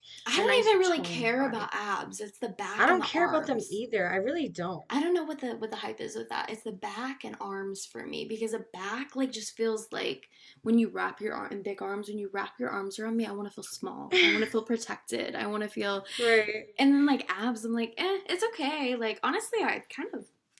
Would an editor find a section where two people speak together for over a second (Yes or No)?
Yes